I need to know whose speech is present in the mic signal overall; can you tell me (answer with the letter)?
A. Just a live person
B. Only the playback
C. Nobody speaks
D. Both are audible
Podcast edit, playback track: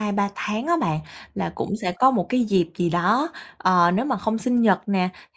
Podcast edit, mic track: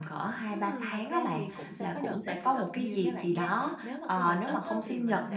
D